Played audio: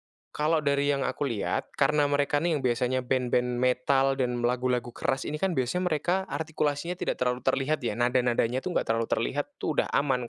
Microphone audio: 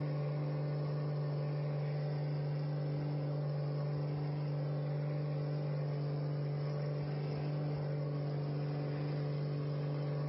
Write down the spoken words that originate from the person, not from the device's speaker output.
none

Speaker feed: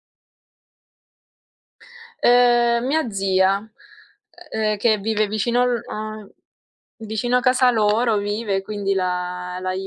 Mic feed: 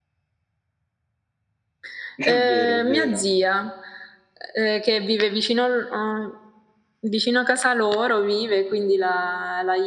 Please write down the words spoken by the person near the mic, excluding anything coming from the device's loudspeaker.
È vero, è vero.

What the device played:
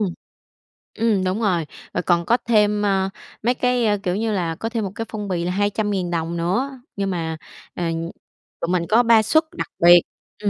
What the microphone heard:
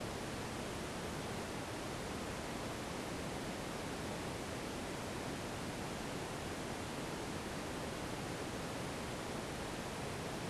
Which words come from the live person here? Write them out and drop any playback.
none

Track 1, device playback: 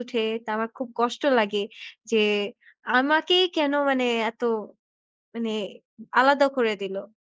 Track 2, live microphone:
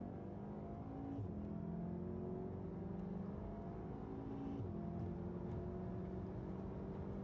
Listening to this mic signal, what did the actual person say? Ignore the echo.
none

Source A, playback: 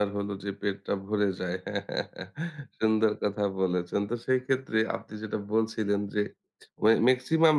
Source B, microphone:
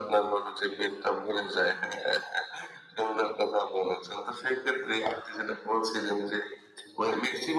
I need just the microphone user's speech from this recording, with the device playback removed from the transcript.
none

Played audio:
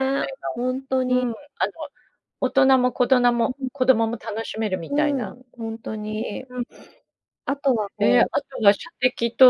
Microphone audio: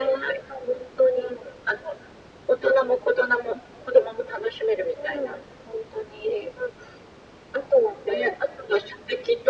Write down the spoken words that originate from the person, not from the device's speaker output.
none

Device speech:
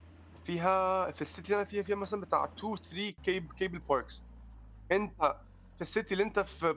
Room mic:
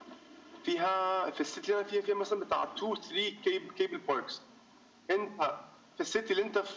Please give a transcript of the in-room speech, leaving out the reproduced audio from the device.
none

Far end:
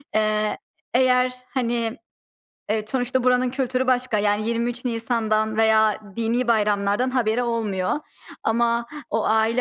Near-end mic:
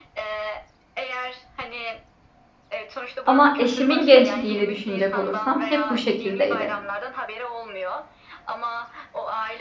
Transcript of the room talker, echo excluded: Ama eşimin gençliğini düşünecek olursam hep bu şekildeydi.

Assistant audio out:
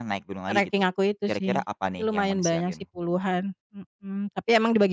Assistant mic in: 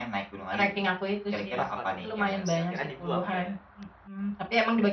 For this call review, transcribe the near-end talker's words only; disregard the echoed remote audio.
Oh sepatu rusak juga, dikirain dibuang enggak ya?

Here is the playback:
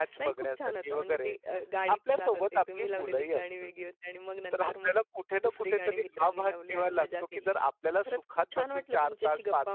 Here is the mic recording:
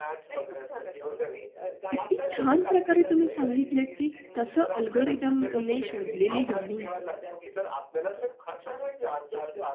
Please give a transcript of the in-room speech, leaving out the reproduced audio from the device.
किती छान प्रकारे तुम्ही सांगितलेत की कसं अल्गोरिथमने शोधलेली गाणी

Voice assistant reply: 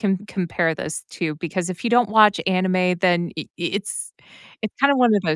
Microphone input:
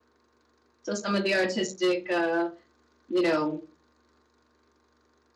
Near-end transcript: So, some of the artistic, uh, you know

